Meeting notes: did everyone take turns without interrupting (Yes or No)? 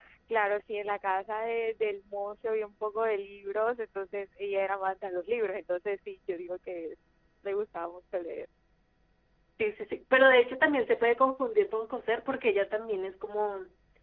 Yes